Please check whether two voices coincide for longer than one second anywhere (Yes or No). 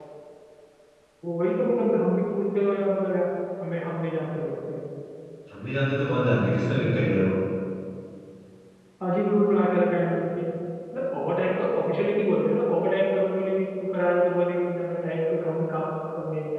No